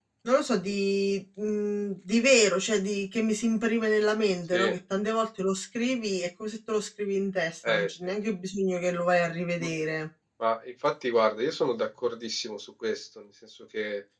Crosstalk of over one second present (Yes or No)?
No